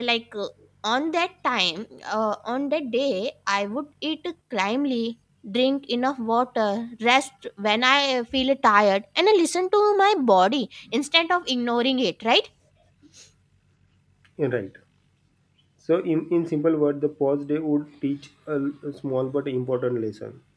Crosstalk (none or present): none